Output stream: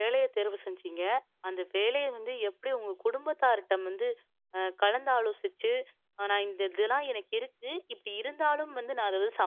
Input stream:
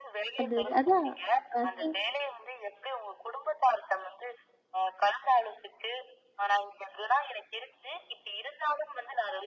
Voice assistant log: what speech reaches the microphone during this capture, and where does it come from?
both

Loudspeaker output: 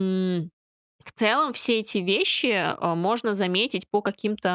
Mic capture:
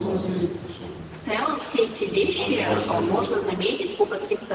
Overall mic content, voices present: both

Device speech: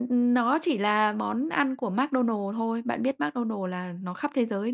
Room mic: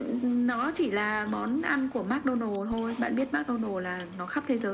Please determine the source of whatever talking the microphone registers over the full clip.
echo only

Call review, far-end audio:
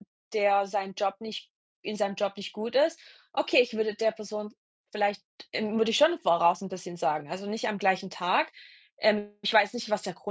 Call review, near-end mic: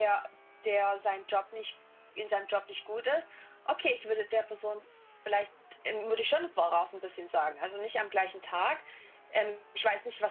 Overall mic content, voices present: echo only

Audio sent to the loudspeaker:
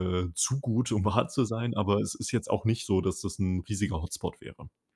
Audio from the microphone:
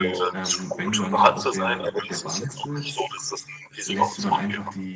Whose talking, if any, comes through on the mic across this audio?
both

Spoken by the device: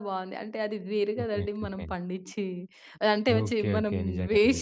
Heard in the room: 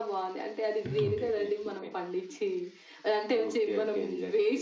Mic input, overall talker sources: both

